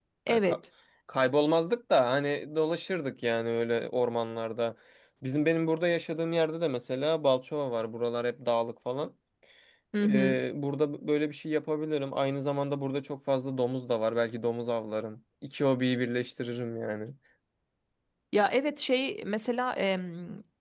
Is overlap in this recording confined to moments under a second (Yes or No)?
Yes